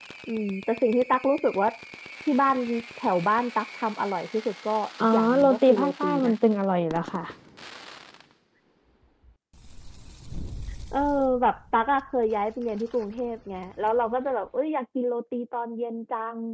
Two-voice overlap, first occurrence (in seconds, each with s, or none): 5.0 s